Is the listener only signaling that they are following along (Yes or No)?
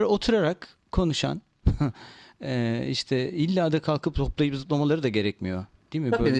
No